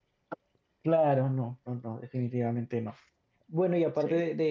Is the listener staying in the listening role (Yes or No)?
Yes